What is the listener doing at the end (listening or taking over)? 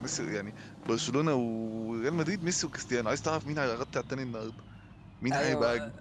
taking over